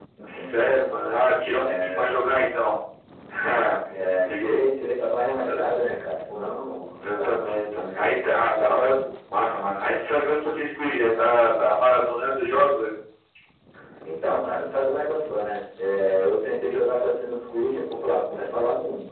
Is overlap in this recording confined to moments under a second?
No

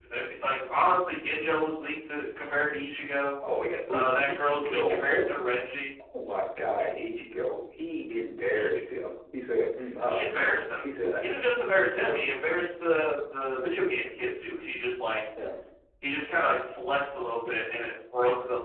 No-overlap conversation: No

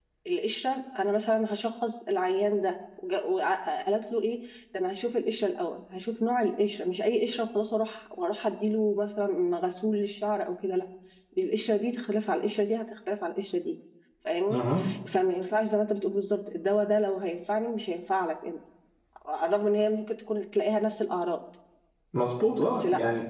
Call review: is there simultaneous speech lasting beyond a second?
No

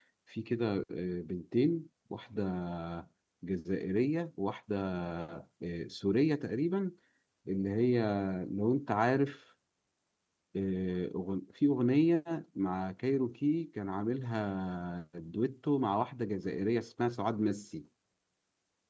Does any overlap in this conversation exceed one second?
No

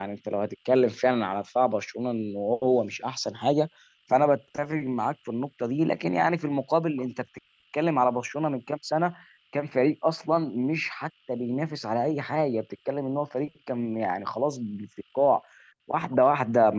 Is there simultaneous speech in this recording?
No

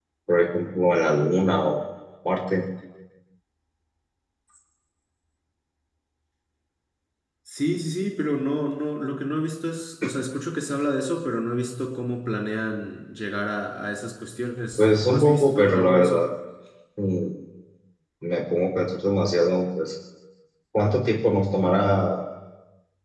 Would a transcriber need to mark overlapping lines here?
Yes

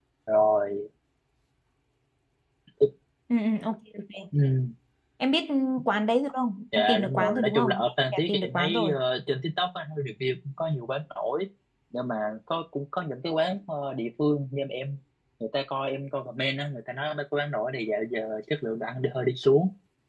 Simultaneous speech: Yes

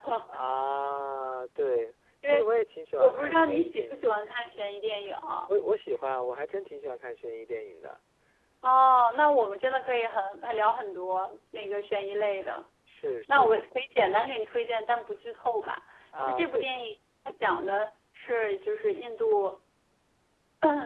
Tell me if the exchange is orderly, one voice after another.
No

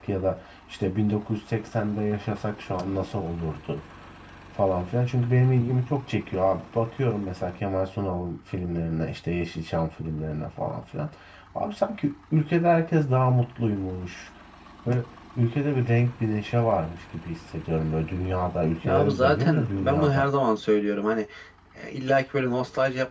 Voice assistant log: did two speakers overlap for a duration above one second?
Yes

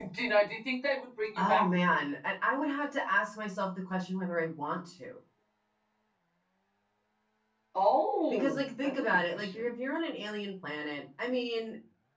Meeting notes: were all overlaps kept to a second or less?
No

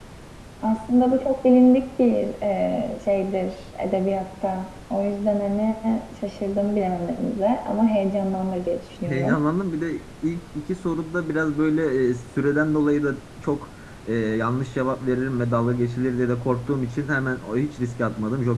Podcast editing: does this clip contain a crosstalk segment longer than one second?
No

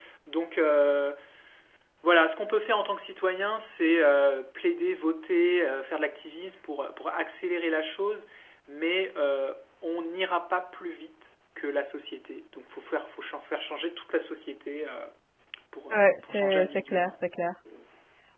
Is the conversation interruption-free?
No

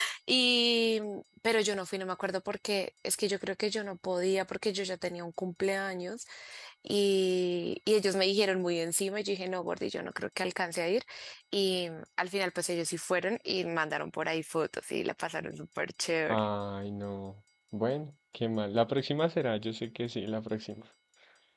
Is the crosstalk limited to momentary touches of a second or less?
Yes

